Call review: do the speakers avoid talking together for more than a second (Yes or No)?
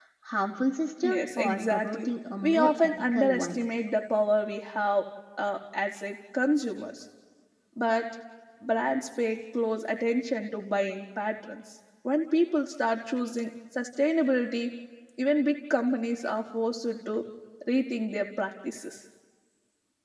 No